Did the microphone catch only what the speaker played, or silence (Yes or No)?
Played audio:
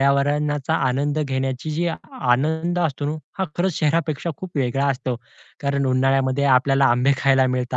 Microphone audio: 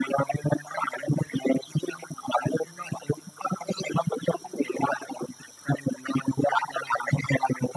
Yes